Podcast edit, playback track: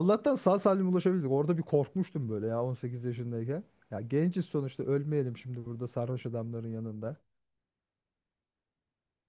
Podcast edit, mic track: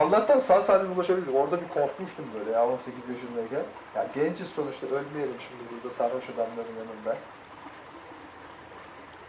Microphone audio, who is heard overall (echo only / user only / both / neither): echo only